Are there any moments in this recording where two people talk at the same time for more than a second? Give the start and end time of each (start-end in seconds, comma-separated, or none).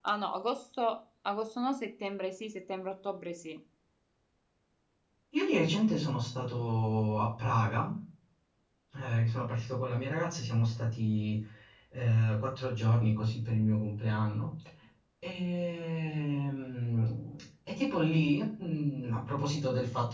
none